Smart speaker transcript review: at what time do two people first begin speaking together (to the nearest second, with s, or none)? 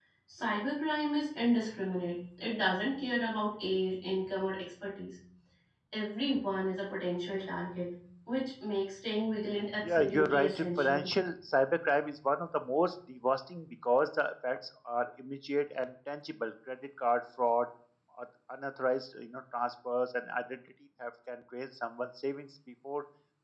10 s